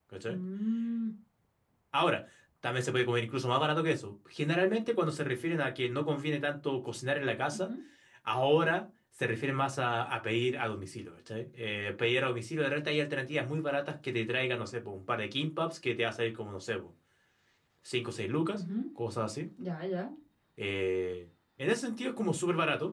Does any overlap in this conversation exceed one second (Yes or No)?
No